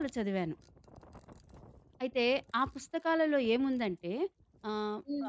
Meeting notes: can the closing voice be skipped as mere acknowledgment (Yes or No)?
No